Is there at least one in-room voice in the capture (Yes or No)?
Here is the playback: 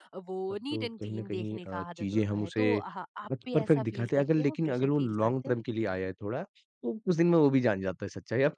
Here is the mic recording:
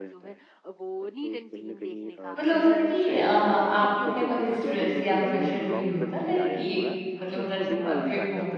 Yes